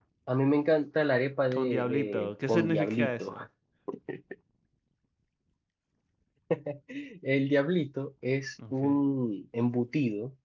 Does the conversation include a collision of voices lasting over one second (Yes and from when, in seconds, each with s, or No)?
Yes, from 1.5 s